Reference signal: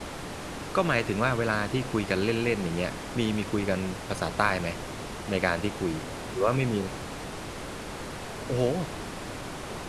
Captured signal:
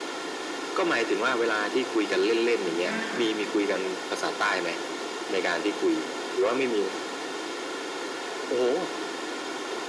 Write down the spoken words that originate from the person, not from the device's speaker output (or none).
อย่างเงี้ยค่ะ